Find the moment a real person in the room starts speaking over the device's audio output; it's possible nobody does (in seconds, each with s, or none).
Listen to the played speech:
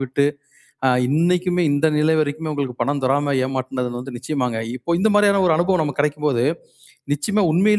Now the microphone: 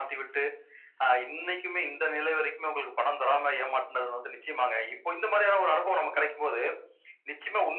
none